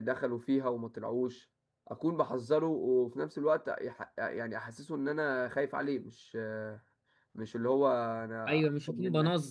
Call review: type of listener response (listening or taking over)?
taking over